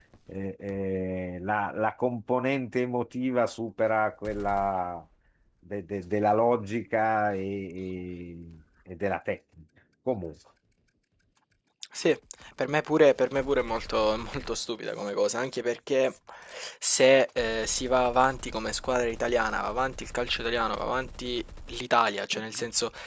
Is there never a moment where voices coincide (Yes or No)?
Yes